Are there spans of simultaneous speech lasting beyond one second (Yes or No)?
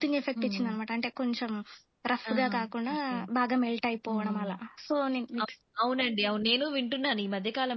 No